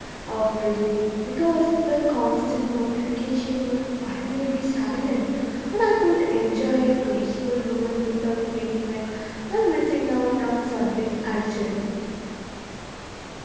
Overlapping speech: No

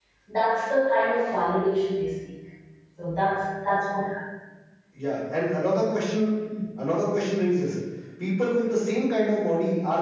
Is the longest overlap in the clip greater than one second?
No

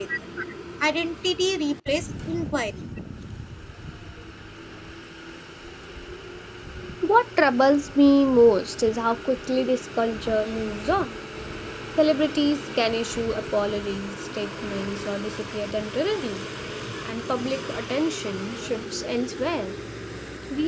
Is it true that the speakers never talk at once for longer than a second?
Yes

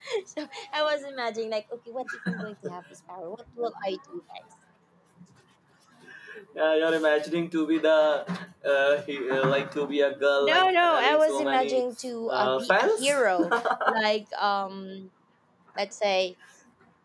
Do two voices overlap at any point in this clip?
Yes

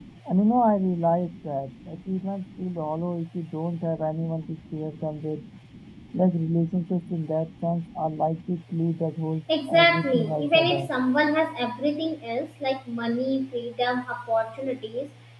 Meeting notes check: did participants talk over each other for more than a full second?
Yes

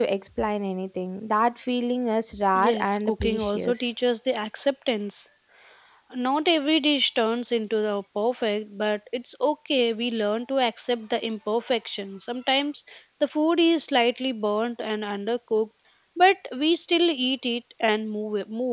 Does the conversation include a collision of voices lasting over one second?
Yes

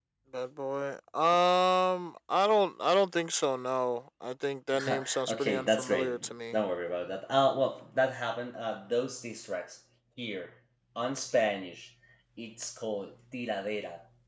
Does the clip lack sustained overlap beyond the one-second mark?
No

